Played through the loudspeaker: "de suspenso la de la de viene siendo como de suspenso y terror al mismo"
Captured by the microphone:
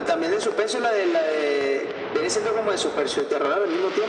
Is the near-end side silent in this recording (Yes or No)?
Yes